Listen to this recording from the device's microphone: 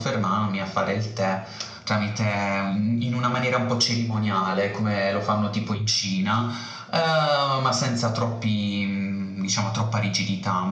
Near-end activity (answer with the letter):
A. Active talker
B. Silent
B